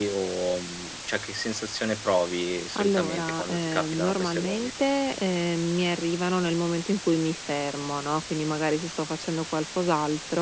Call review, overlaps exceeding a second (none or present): present